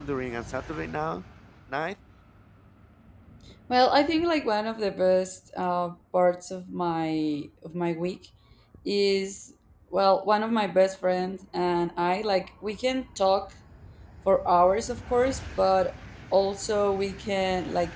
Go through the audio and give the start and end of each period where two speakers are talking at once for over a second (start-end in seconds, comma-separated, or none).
none